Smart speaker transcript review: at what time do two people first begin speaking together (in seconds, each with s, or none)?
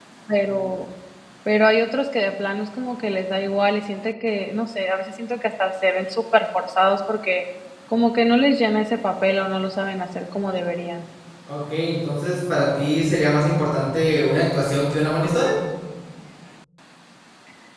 none